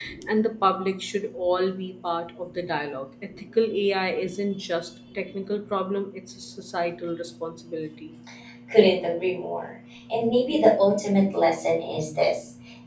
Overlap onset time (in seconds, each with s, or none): none